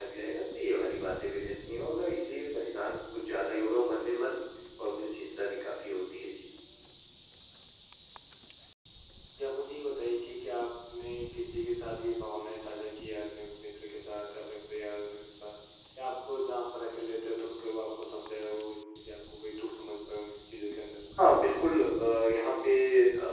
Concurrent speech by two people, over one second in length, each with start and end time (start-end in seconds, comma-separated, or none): none